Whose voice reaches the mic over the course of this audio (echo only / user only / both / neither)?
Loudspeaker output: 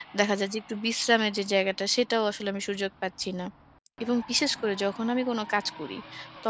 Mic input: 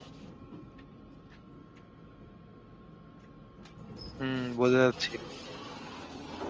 user only